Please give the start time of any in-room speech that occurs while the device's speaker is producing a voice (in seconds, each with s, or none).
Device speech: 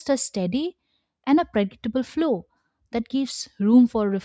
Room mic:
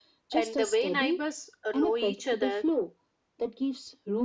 0.3 s